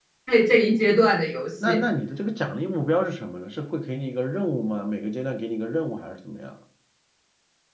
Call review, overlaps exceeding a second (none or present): none